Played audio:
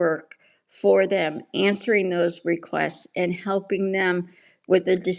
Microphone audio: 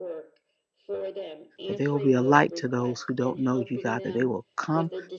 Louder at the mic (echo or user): user